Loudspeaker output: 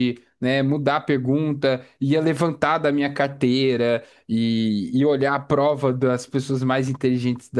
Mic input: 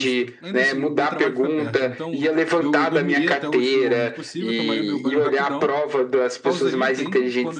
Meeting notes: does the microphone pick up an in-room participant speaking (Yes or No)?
Yes